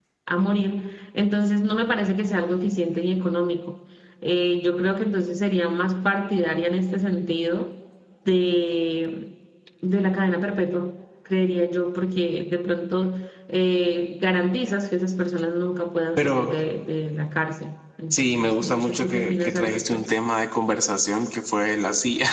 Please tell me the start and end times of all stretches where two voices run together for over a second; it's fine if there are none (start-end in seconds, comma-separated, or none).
18.1-20.1